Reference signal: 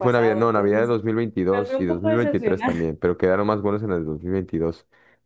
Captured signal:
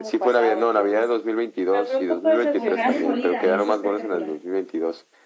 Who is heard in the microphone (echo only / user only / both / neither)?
both